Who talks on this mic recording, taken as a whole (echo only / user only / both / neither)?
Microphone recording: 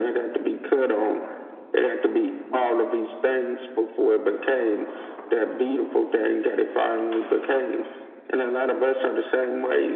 echo only